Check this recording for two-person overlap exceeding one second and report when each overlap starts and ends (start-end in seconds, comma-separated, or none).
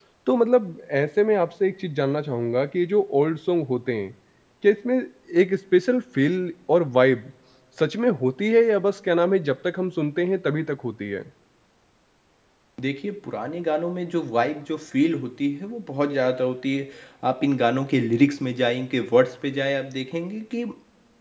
none